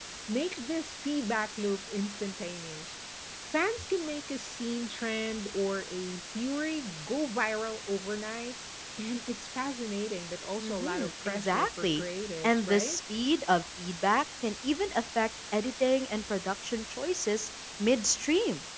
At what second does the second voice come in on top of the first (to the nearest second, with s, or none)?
11 s